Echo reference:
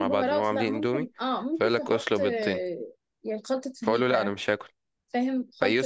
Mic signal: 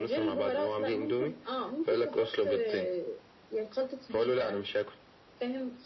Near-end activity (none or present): none